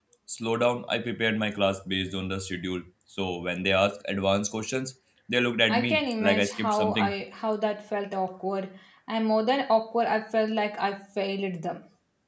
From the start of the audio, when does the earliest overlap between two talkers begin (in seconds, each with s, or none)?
5.7 s